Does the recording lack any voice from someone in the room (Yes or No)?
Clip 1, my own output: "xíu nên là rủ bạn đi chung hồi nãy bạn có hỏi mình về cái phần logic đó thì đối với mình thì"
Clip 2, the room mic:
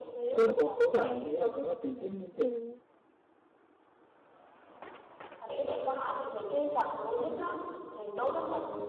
No